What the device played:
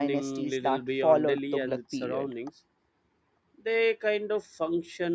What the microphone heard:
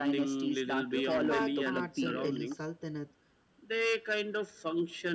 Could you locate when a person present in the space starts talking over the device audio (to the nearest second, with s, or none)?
1 s